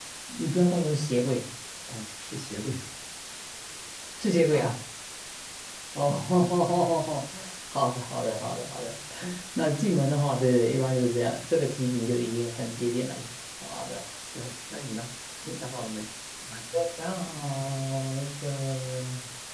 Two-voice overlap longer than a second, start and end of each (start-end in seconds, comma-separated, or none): none